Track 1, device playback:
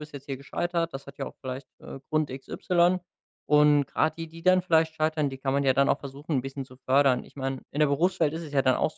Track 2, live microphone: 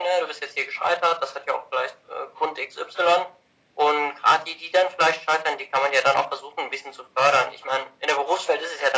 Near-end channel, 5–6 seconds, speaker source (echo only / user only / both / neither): echo only